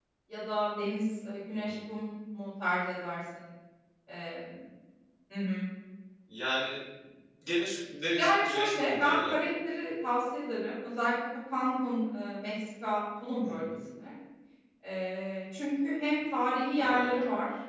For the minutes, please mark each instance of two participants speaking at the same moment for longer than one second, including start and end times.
8.2-9.4

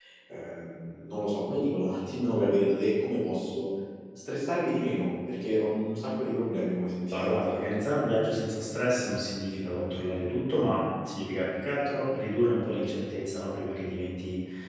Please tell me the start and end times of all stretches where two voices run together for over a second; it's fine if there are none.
none

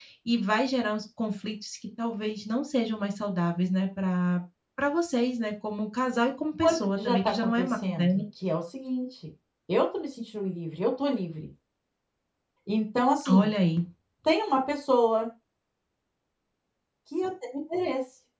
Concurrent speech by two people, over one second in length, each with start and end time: 6.6-8.0

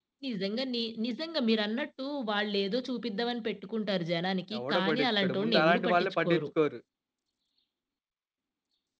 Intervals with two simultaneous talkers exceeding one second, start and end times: 4.6-6.4

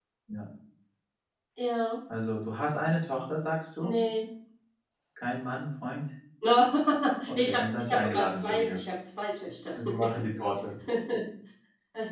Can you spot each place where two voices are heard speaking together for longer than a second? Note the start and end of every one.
7.4-8.8

